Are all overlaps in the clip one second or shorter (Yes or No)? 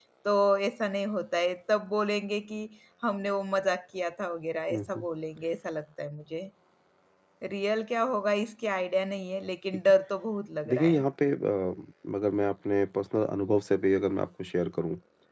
Yes